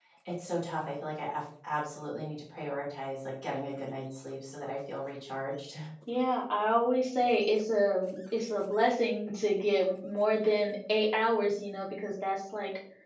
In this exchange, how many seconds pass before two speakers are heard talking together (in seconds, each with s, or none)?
none